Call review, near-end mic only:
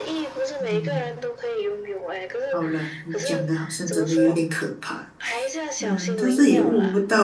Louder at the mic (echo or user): user